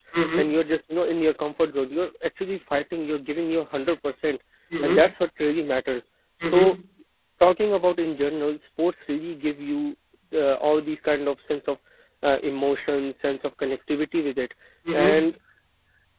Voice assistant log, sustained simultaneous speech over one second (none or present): none